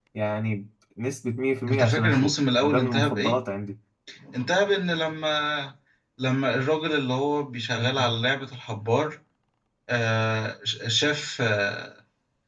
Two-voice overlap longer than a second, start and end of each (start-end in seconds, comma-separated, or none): 1.7-3.4